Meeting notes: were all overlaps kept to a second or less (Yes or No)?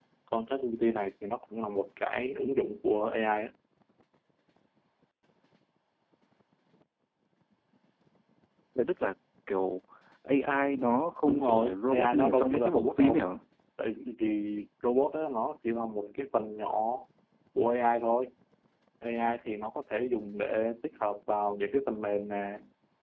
No